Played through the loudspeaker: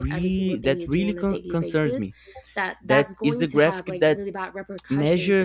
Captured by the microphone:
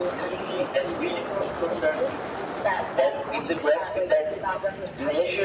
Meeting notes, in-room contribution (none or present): none